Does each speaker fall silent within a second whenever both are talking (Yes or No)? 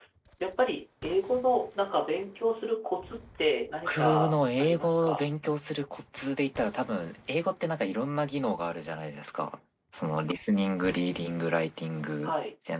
No